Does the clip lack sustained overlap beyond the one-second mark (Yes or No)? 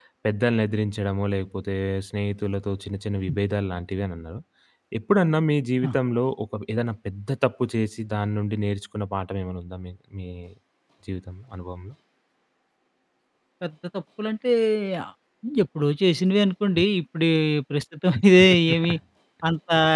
Yes